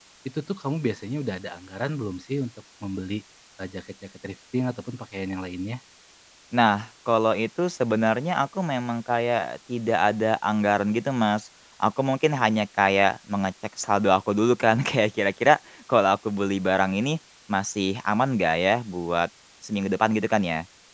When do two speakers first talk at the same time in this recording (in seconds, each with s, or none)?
none